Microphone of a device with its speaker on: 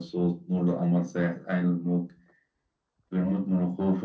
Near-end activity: none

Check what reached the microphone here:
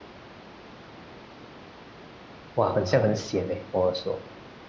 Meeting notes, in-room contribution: present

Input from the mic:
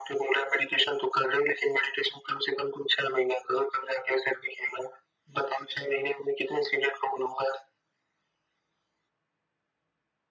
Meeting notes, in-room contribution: none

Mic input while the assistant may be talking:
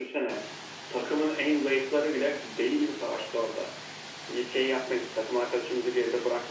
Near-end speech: none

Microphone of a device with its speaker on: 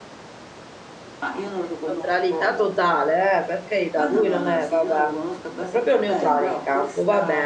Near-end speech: present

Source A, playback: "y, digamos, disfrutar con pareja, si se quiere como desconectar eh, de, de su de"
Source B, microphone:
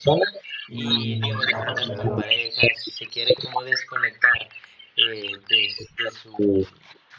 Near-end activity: present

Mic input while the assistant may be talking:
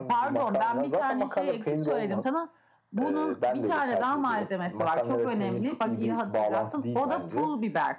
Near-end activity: none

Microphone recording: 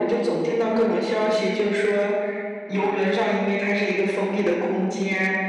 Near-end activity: none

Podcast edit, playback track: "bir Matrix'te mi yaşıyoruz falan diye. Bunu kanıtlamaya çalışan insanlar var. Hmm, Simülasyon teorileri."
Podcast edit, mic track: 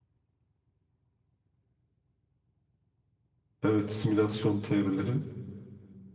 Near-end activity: present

